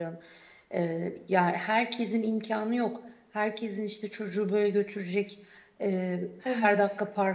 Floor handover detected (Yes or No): No